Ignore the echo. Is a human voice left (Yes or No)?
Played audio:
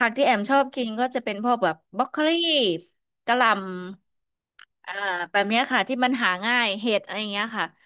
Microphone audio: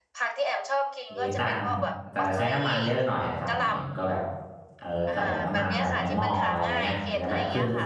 Yes